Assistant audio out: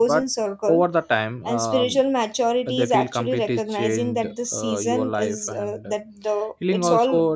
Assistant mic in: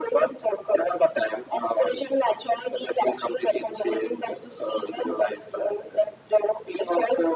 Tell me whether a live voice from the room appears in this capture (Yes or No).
No